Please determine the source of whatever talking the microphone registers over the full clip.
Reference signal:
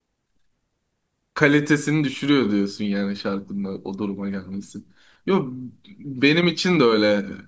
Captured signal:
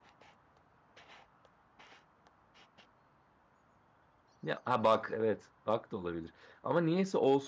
user only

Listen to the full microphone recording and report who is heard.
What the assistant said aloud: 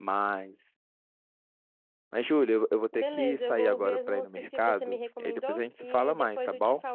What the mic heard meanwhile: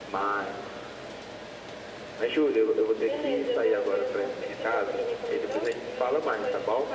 echo only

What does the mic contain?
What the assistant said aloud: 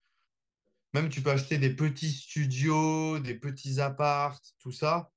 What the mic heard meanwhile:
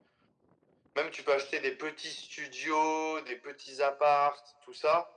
echo only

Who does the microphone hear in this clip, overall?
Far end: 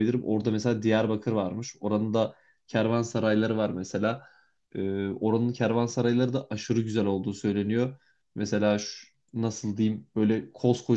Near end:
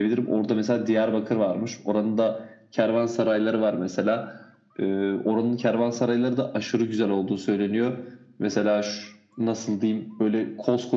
echo only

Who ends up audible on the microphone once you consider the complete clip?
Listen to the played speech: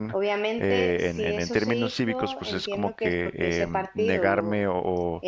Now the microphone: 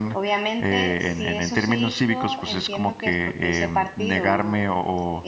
echo only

